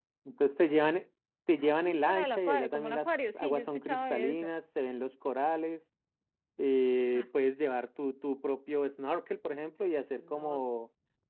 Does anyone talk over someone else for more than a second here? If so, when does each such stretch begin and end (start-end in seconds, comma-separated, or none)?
1.6-4.5